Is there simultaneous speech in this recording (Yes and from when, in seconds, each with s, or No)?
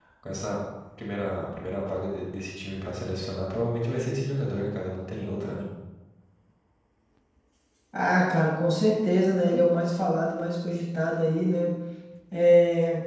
No